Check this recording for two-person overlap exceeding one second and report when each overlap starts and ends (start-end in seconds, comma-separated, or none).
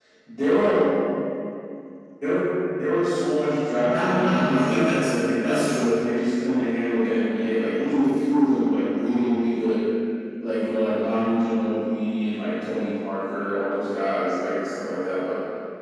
3.9-6.0